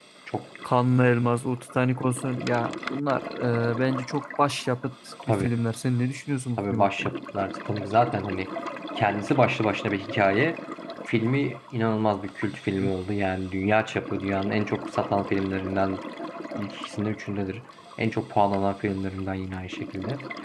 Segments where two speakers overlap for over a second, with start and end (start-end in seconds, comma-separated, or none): none